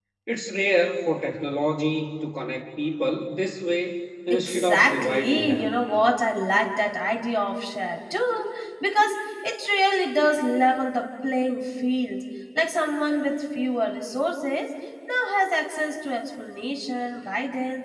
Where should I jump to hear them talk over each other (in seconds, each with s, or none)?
4.3 s